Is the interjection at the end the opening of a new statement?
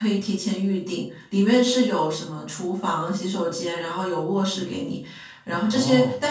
No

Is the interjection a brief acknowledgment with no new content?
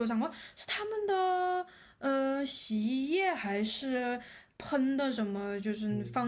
No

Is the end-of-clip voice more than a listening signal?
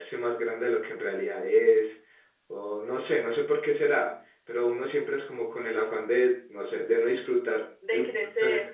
No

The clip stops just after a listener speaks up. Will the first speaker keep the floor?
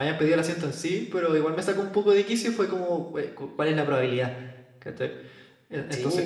No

